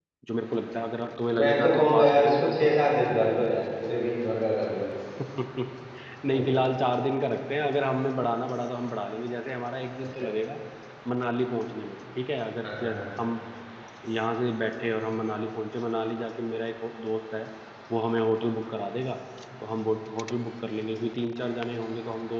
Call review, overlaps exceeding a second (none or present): present